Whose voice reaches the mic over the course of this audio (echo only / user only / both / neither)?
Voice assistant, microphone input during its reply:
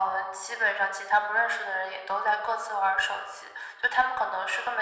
echo only